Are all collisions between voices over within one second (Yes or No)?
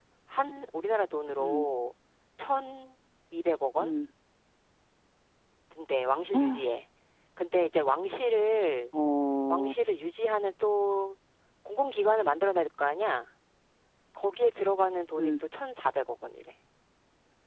Yes